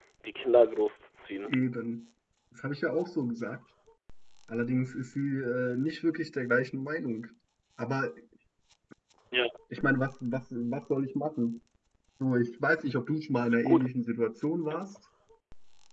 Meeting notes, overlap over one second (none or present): none